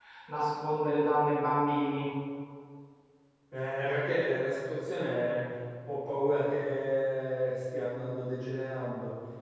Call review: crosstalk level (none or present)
none